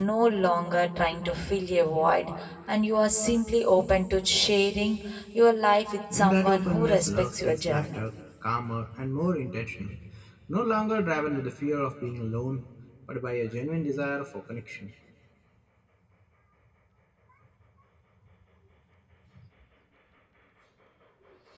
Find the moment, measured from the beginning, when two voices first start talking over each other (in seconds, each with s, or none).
6.1 s